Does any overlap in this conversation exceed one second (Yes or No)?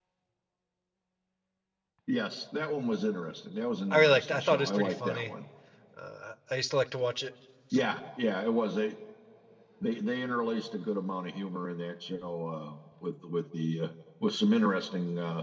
Yes